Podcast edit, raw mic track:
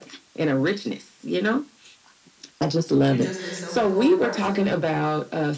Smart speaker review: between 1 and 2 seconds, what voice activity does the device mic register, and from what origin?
echo only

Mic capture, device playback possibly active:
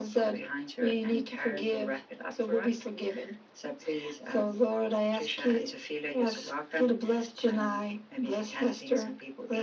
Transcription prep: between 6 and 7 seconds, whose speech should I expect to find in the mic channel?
echo only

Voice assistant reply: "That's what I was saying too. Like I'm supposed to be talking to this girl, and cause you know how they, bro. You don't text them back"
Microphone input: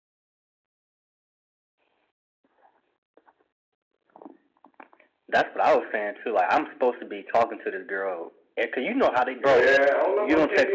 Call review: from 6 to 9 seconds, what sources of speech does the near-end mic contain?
echo only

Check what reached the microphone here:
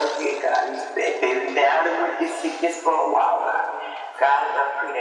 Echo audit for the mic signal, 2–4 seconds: echo only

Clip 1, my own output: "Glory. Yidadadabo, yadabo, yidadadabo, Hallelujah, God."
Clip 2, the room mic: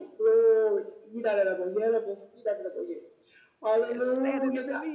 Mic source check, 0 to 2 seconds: echo only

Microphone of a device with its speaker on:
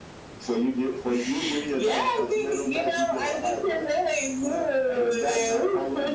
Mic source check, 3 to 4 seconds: echo only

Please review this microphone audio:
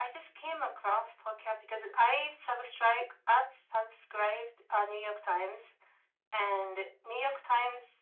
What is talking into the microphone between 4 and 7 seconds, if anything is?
echo only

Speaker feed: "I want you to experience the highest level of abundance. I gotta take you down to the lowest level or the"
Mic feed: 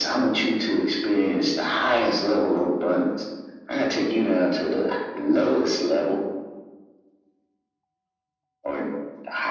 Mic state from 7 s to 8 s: neither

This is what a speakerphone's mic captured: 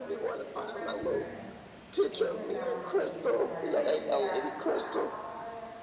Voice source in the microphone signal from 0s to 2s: both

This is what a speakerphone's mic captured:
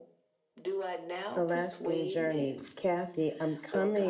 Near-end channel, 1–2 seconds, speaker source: both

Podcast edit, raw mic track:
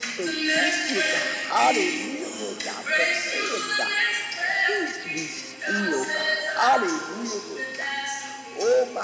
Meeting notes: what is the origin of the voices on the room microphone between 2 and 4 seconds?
both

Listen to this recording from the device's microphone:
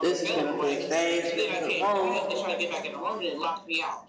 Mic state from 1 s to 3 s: both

